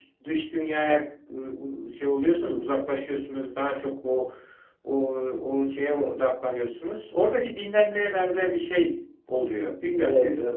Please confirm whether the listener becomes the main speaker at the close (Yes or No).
Yes